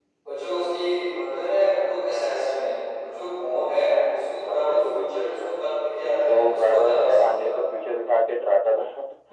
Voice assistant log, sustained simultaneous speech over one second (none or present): present